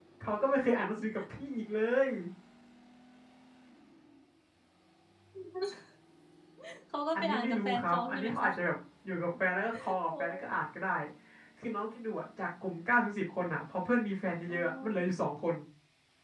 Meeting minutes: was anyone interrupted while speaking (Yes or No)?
Yes